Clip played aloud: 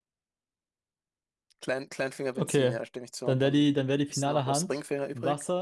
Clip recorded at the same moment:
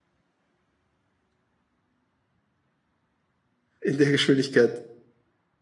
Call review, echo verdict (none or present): none